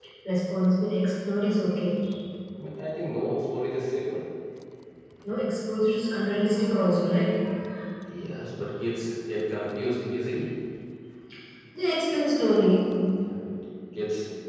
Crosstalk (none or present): none